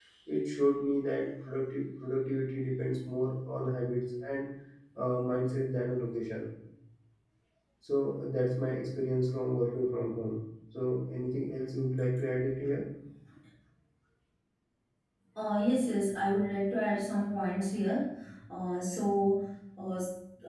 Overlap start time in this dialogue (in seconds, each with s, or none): none